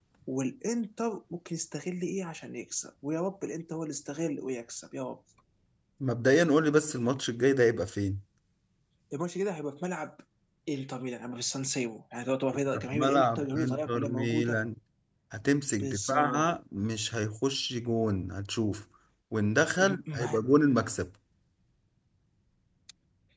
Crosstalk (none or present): present